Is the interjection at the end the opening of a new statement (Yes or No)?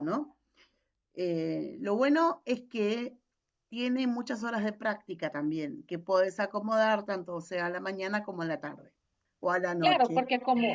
Yes